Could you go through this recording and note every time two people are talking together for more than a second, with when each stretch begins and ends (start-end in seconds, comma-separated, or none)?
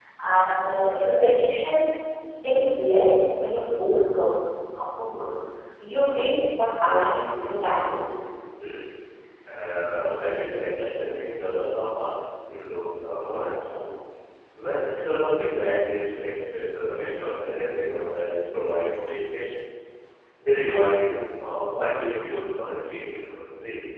none